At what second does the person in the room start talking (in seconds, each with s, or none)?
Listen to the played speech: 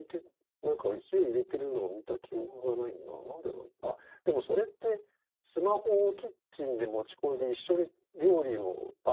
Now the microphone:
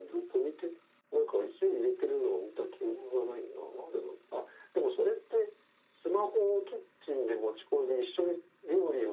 none